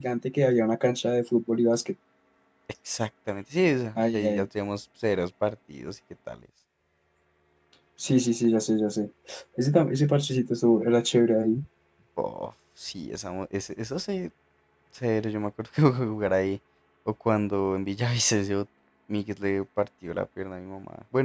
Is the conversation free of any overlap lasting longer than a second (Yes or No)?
Yes